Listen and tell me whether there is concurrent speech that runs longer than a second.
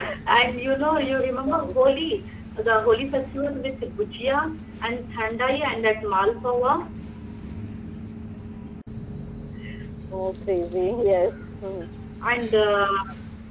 No

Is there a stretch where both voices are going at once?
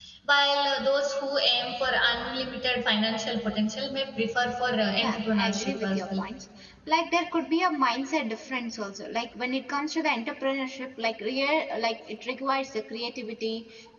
Yes, from 5.0 s

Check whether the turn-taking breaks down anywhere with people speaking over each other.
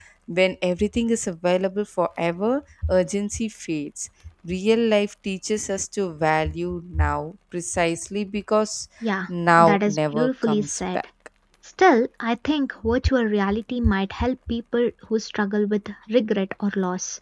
Yes, from 9.6 s

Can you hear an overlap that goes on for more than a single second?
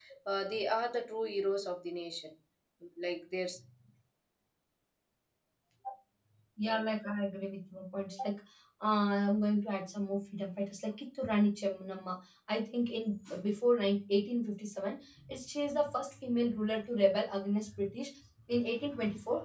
No

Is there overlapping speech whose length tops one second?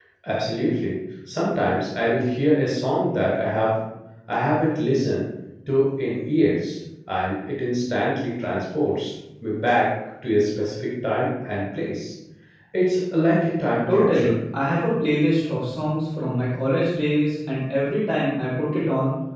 No

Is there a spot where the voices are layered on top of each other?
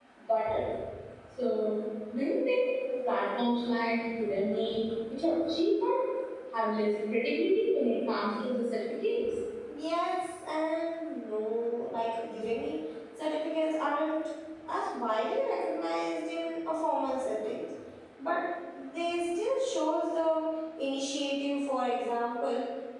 No

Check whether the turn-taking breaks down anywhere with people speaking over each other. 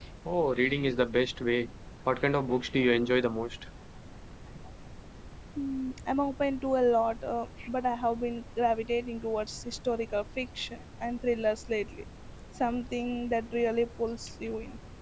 No

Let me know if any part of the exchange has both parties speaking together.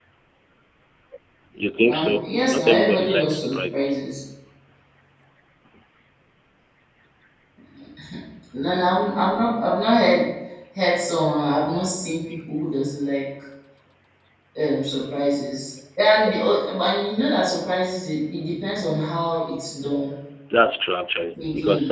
Yes, from 1.8 s

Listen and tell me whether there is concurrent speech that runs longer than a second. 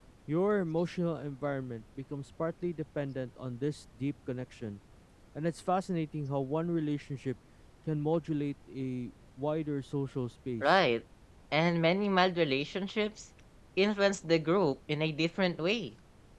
No

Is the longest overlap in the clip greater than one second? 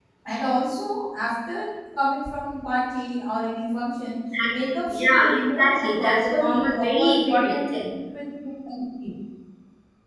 Yes, from 4.3 s

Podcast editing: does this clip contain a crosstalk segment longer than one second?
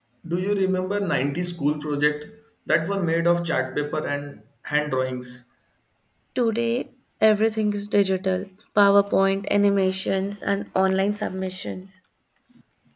No

